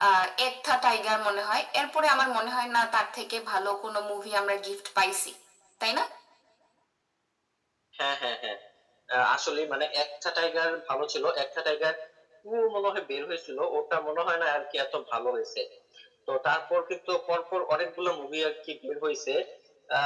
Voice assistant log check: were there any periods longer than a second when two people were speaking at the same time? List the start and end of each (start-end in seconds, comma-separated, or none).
none